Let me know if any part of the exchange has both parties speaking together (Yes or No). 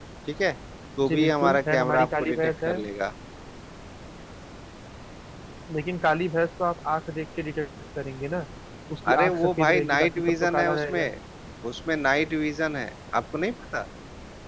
Yes